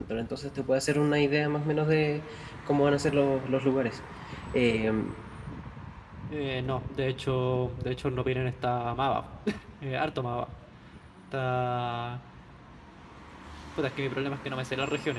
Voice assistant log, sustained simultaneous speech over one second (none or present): none